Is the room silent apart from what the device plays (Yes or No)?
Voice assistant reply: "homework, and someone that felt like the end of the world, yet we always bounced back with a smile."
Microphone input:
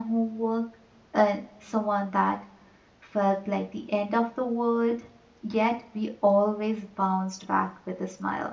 Yes